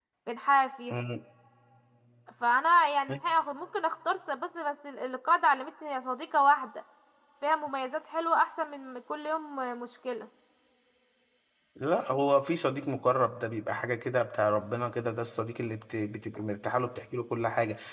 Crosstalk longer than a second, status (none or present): none